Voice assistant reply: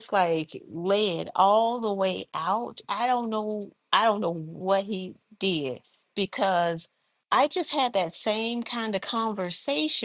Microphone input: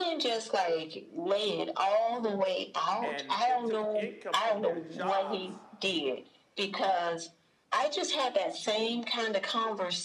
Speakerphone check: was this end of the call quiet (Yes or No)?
No